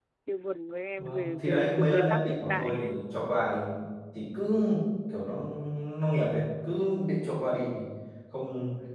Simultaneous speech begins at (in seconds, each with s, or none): 1.0 s